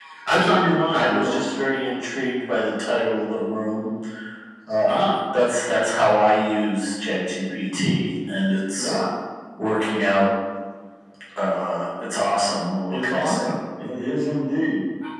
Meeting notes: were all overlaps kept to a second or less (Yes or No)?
Yes